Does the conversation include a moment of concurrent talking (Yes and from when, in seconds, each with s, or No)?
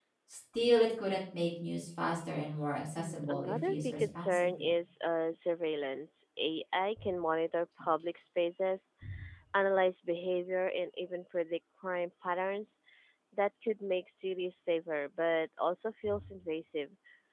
Yes, from 3.0 s